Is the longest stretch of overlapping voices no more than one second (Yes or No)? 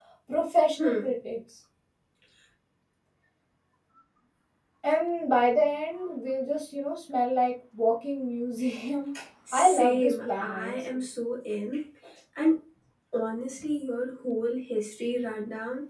No